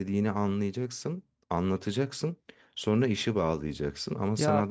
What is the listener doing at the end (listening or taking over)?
listening